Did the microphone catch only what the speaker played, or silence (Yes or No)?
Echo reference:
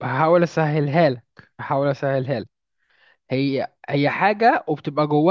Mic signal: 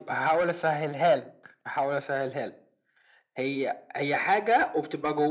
Yes